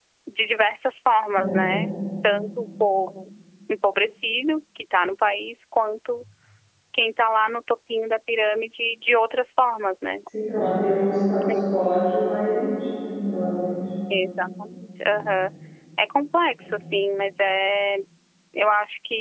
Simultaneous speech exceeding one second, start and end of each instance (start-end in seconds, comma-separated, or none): none